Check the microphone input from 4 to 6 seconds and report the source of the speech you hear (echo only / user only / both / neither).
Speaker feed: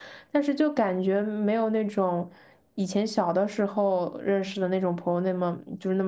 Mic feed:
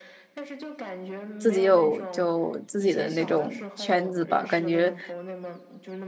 both